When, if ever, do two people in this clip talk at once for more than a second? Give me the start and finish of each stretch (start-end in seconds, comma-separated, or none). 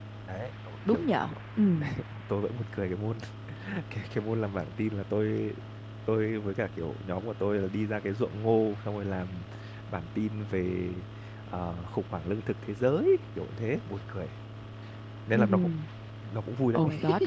none